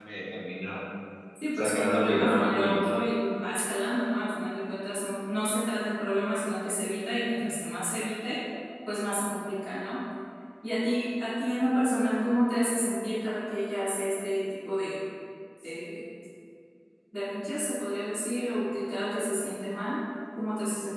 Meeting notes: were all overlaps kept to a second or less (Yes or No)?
No